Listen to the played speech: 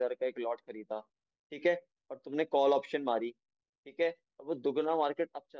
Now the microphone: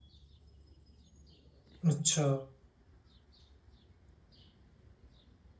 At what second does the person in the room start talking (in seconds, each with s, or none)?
1.9 s